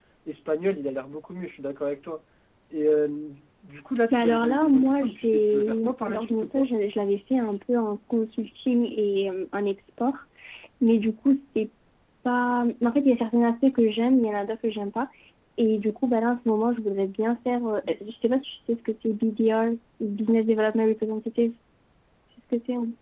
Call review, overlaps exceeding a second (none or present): present